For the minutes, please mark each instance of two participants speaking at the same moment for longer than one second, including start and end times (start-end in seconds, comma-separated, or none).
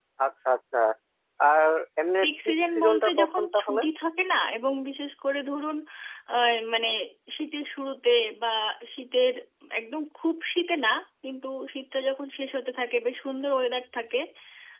2.2-3.8